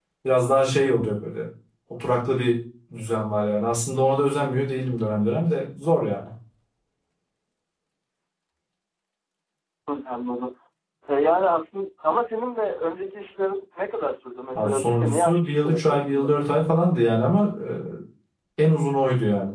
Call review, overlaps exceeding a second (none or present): present